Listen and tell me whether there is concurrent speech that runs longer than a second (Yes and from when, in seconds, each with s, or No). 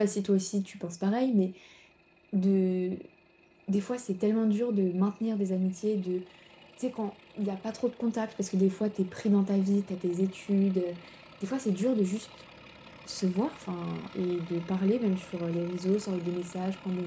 No